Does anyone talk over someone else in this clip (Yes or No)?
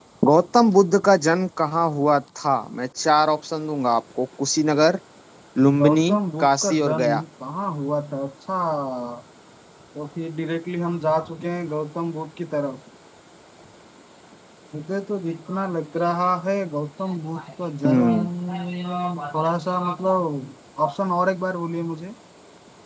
Yes